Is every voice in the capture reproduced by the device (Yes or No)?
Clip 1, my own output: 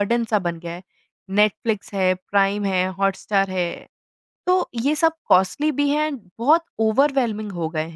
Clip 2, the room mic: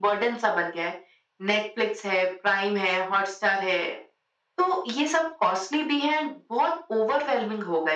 Yes